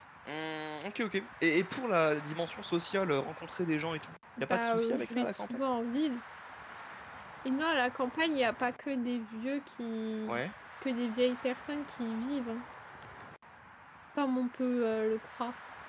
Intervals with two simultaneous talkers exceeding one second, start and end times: 4.4-5.6

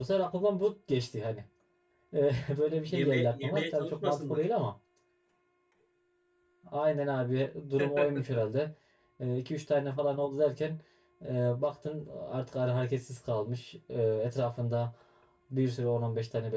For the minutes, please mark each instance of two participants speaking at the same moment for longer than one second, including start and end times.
2.9-4.5

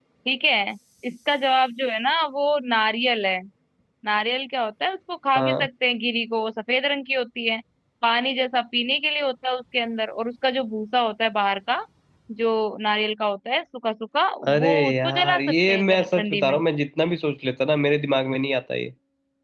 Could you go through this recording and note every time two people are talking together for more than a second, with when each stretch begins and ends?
14.5-16.6

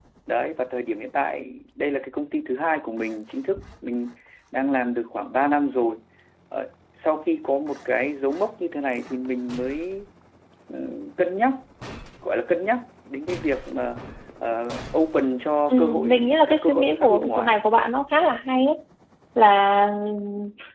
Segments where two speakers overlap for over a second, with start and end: 15.7-17.5

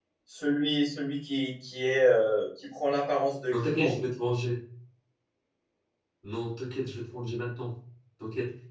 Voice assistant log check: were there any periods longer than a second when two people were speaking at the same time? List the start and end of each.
none

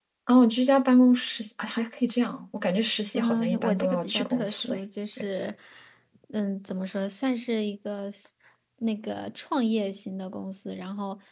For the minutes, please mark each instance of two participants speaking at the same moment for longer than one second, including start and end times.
3.1-4.8

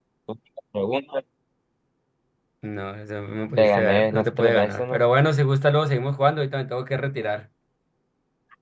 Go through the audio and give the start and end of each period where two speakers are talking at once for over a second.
3.6-5.0

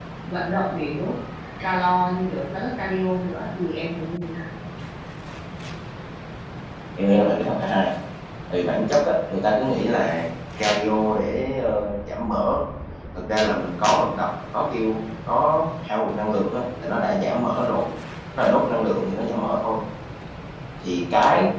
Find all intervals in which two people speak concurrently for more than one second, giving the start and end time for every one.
none

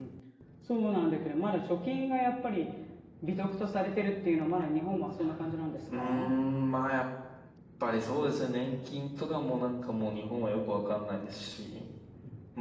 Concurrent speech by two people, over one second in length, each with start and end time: none

